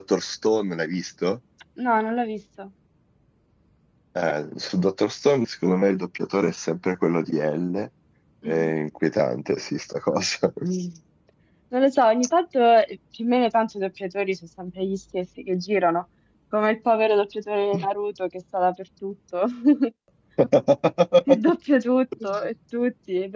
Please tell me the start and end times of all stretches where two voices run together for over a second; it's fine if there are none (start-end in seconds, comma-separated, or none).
none